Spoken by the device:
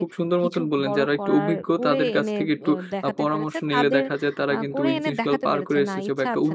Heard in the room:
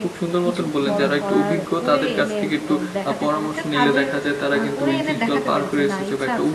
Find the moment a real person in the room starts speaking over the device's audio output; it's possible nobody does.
0.8 s

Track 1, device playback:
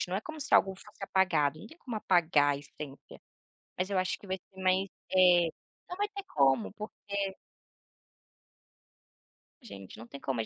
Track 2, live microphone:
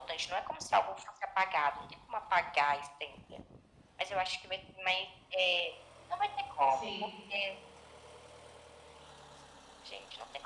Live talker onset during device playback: 6.7 s

